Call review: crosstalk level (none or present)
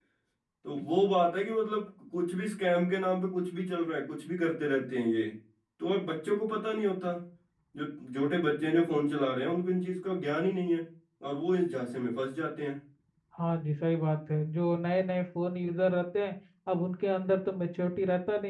none